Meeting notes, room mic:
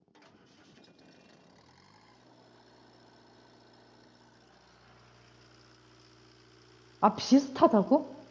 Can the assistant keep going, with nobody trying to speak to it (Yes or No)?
No